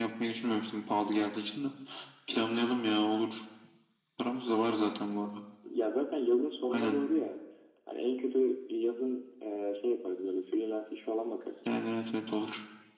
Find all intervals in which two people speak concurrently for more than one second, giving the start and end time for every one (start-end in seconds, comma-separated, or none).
none